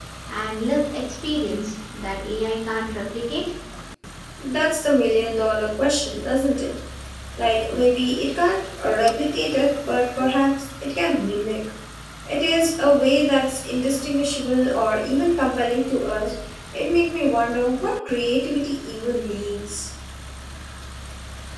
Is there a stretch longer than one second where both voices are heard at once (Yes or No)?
No